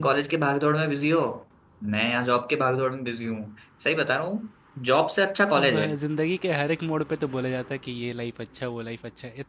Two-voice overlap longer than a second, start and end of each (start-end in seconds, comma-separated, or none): none